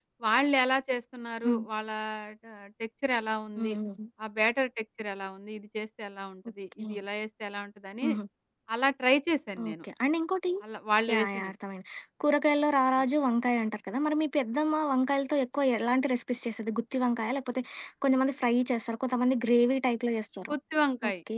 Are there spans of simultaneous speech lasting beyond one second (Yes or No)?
No